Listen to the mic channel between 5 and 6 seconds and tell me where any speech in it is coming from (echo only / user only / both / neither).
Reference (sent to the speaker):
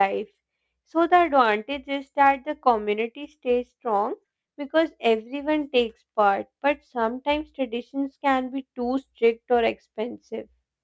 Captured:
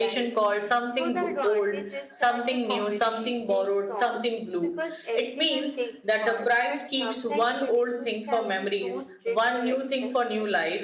both